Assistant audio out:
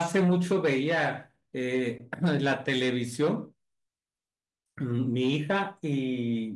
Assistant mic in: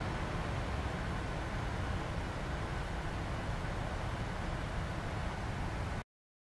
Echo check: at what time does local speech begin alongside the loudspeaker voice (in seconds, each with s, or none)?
none